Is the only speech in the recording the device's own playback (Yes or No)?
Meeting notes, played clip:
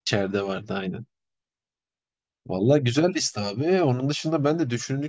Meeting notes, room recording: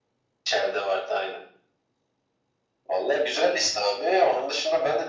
Yes